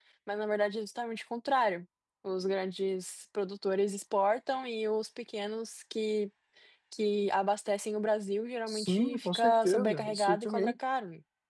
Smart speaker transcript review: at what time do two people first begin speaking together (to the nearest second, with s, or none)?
9 s